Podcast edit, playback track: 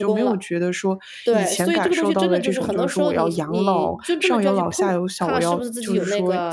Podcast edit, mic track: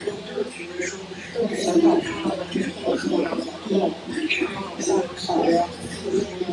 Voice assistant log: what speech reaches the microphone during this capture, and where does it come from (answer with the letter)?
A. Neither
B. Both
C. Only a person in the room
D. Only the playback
D